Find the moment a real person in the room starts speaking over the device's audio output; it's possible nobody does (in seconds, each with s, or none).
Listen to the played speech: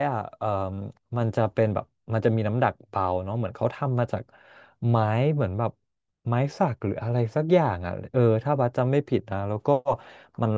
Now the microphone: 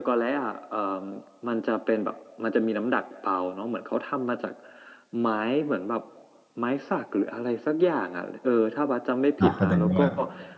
9.4 s